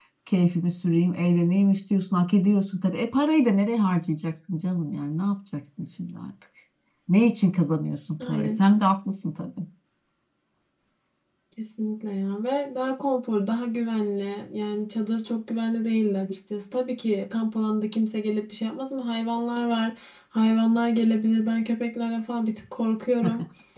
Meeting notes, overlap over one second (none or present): none